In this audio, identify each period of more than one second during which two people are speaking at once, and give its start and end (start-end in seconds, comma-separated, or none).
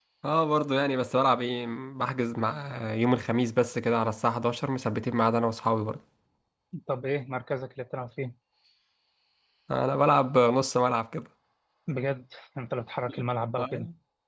none